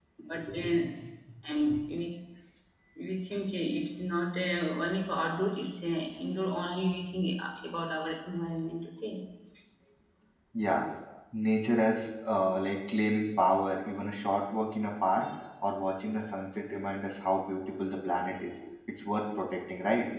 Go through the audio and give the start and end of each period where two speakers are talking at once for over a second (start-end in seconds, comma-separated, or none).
none